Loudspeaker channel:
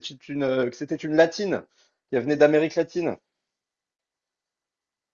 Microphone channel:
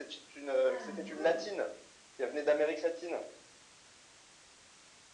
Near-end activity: present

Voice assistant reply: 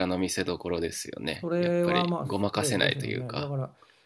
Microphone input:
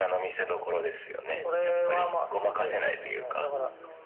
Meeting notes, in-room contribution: present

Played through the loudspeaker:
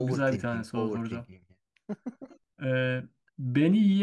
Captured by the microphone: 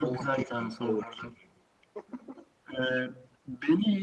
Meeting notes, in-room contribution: none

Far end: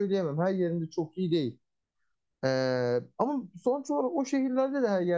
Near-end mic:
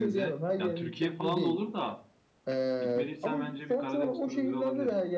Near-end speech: present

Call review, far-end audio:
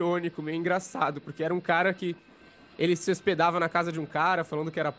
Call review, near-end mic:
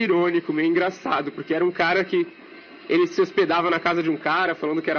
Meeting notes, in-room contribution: none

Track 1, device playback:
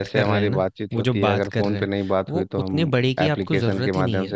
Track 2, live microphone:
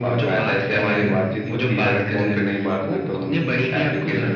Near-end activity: none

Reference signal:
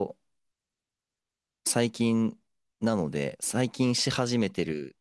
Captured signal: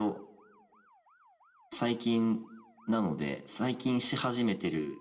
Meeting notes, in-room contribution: none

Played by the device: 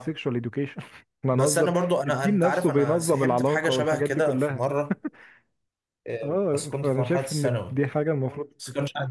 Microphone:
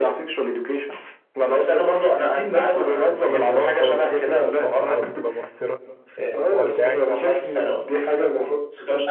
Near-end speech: present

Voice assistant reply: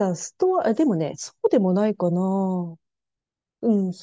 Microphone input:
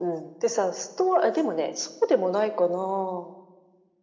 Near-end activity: none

